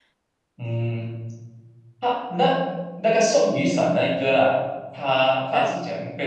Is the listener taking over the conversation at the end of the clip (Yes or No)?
No